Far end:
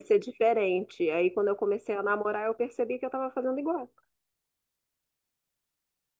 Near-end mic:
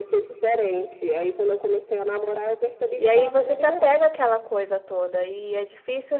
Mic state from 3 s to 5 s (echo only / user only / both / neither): both